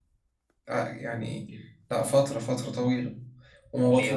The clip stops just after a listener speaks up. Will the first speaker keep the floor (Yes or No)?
Yes